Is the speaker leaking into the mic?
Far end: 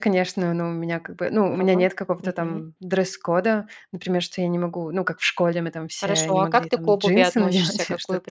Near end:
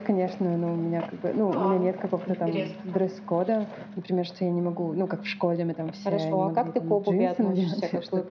Yes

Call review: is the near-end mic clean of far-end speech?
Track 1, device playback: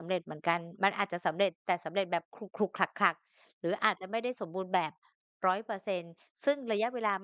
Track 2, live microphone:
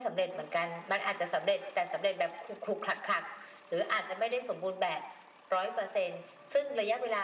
No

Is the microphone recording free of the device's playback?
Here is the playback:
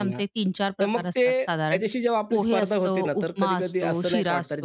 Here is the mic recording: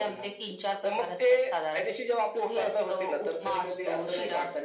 No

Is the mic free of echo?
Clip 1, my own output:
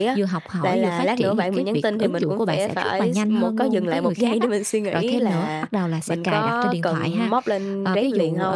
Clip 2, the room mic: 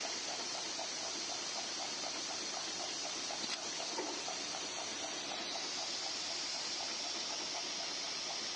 Yes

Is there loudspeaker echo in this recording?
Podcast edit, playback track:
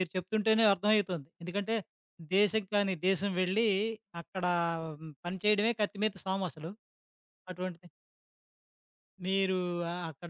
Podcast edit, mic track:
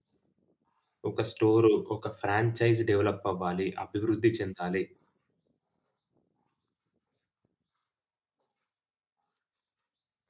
No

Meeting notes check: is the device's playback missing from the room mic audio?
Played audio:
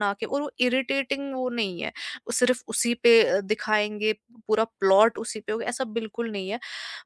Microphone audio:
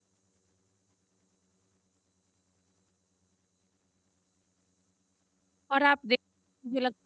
Yes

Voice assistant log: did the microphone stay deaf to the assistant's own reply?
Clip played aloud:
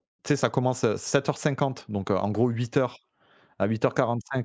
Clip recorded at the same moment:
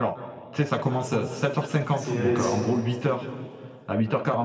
No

